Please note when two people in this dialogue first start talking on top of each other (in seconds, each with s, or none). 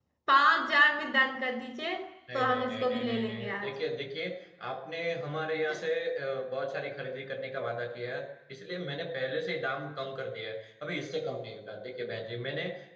2.3 s